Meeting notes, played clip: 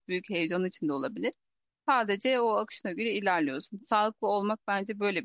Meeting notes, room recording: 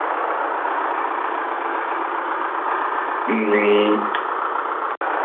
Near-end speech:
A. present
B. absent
A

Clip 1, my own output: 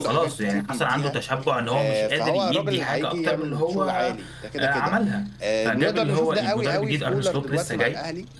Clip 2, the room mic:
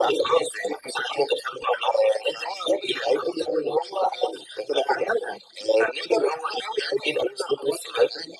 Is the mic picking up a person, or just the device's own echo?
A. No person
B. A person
A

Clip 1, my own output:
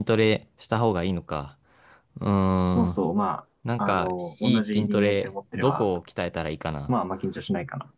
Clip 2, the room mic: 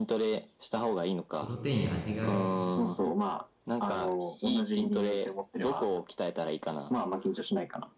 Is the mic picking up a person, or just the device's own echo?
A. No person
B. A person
B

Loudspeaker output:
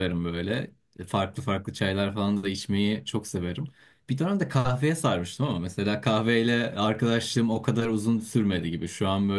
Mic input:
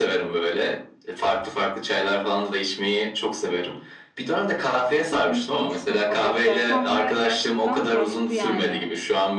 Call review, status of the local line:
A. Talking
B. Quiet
A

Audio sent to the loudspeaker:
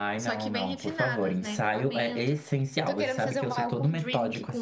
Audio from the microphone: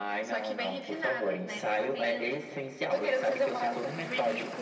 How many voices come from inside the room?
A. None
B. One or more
A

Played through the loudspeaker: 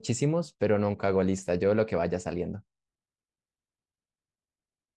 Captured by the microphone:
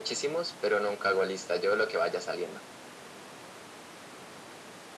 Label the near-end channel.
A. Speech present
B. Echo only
B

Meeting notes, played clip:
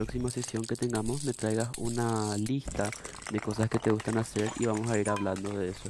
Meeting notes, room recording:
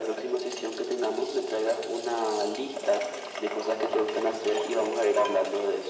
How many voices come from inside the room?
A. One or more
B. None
B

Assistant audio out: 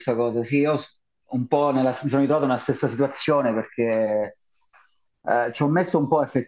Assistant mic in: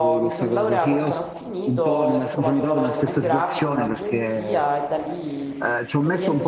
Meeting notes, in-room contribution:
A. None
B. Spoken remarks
B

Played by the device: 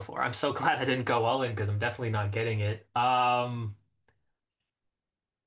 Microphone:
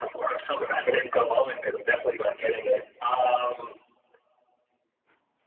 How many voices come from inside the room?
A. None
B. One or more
A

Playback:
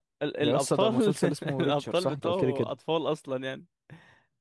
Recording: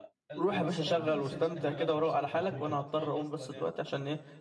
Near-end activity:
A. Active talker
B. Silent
A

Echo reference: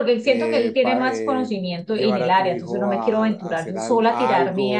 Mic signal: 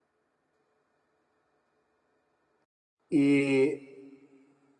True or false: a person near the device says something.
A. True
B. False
A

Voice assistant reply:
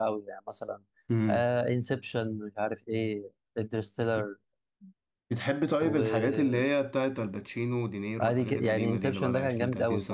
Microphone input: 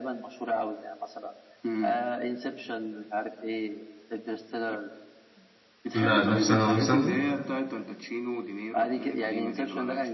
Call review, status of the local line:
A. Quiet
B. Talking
B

